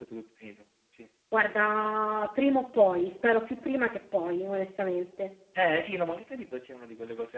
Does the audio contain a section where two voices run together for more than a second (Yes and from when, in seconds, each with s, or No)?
No